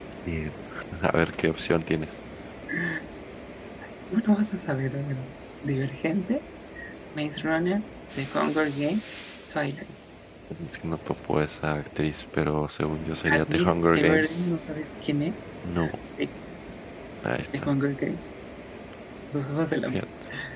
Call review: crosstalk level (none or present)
present